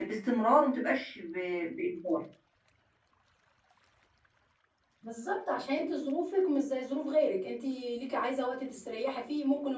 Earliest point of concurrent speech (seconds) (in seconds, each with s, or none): none